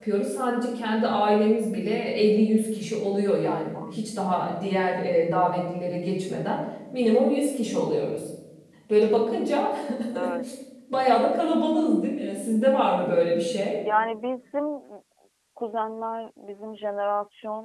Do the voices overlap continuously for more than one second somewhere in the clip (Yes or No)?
No